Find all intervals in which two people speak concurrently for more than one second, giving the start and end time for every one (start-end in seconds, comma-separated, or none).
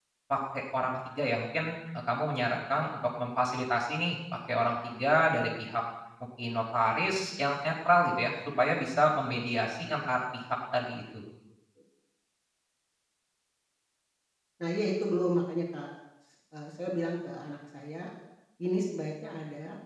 none